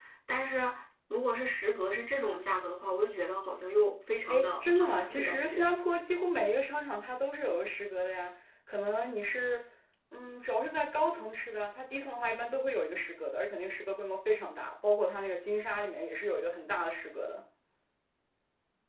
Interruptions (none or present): present